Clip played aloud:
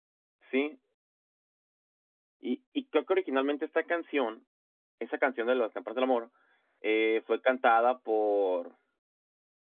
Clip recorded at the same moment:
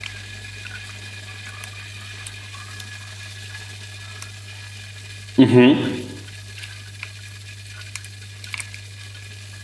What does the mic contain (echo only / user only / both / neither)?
user only